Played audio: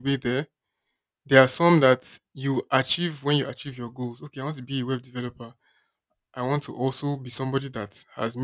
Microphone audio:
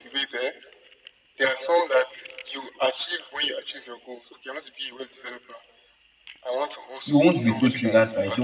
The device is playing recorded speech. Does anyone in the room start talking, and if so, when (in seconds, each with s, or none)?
7.0 s